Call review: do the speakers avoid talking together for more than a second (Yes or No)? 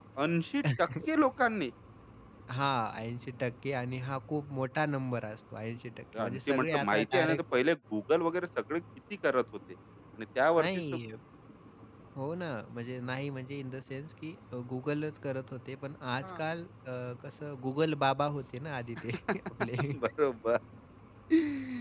No